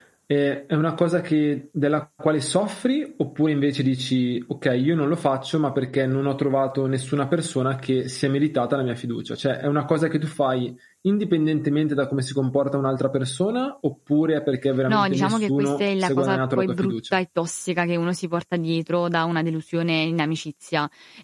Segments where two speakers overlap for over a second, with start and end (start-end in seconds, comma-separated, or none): 14.9-17.2